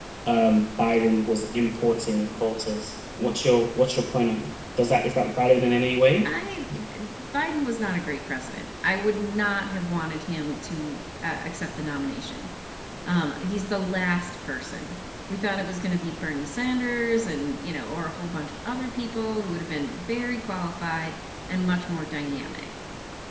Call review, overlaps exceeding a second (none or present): none